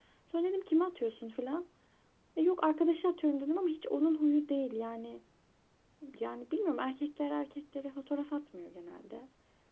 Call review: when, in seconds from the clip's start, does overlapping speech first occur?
none

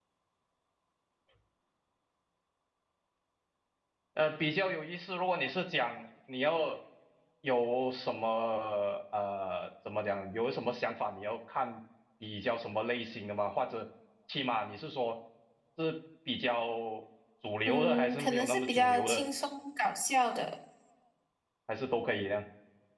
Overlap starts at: 17.6 s

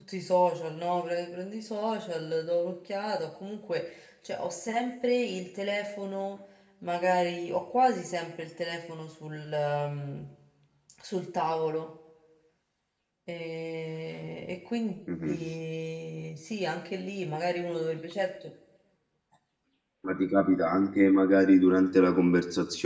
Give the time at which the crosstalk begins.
none

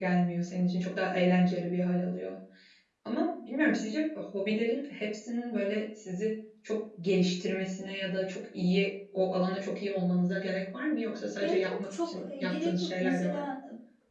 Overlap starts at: 11.4 s

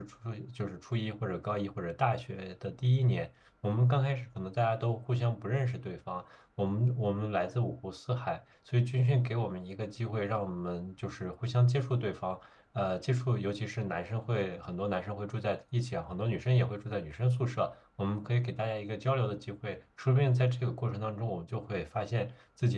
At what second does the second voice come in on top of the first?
none

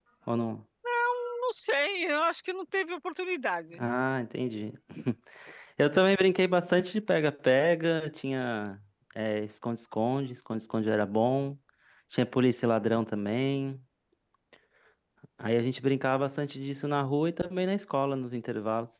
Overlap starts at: none

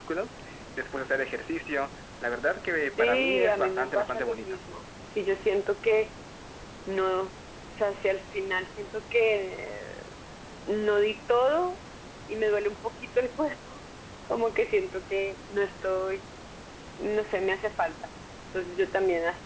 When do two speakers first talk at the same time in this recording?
3.0 s

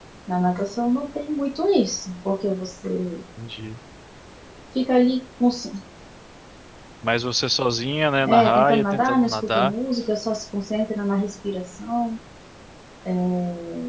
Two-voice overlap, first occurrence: 8.2 s

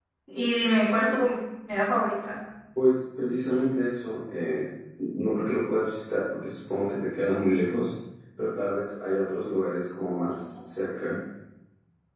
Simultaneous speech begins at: none

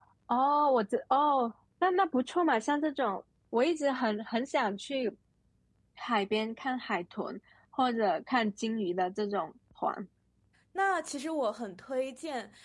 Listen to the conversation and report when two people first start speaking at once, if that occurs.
none

